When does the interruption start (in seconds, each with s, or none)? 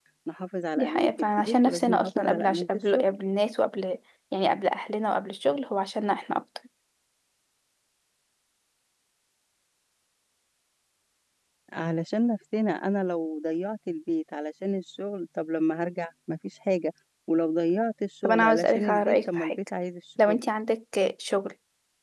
0.8 s